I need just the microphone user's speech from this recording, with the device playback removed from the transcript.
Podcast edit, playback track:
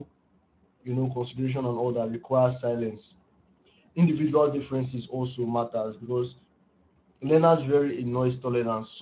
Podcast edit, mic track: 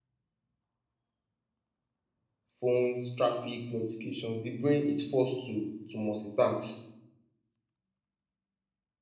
phones, traffic, notifications, the brain is forced to to multitask.

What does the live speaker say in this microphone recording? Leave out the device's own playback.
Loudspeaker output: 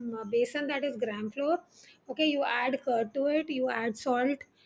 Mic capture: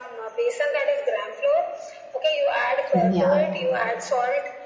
yeah

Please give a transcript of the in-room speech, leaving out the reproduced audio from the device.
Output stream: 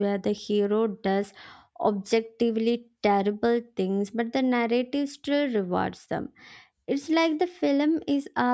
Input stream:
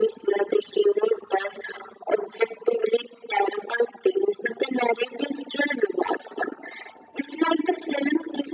none

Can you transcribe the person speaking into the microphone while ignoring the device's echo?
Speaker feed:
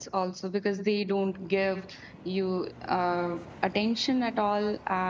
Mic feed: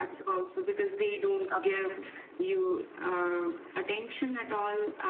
okay Mm.

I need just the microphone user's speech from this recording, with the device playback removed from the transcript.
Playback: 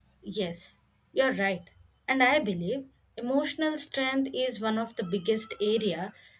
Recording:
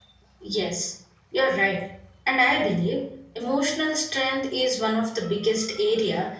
none

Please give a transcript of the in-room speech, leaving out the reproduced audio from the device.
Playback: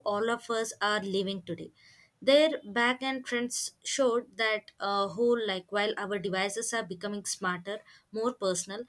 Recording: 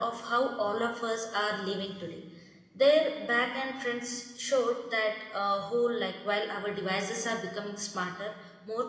none

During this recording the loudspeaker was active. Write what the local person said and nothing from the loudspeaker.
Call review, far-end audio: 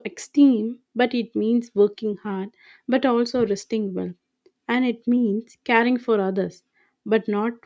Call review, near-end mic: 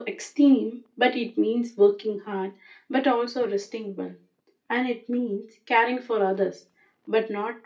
none

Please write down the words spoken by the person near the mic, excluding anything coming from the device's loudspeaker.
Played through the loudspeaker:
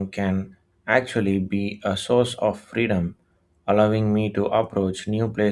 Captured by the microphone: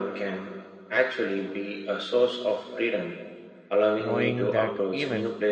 knowing that even

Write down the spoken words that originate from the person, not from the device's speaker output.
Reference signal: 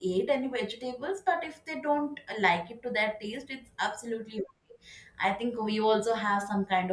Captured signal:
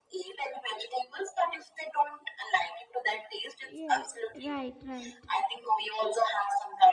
Yes, right, right.

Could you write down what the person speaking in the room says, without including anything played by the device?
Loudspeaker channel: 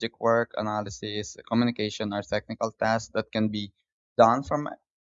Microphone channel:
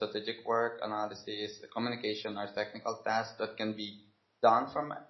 none

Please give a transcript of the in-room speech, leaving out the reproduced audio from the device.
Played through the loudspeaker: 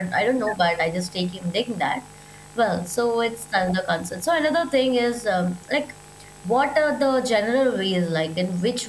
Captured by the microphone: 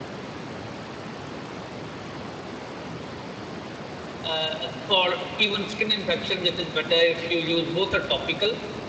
uh, for even skin infections, it is better if you use both a topical

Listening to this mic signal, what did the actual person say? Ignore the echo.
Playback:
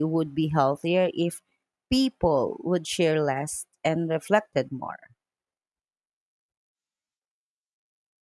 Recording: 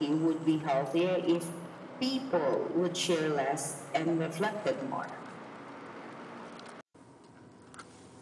none

